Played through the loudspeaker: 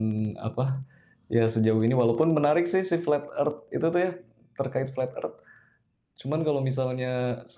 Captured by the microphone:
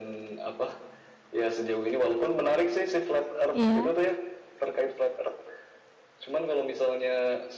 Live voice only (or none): Iya.